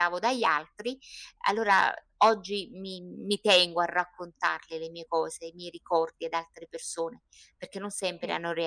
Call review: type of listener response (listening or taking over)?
listening